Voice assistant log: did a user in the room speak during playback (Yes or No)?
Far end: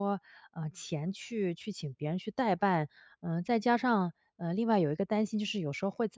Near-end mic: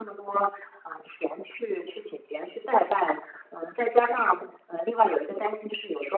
No